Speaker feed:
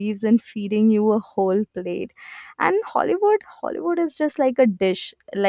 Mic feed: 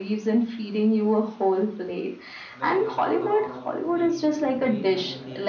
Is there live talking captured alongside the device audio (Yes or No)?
Yes